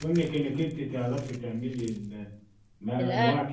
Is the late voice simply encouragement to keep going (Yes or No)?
Yes